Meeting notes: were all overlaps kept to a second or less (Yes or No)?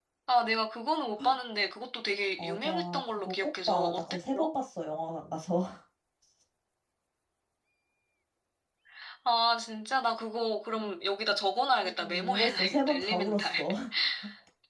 No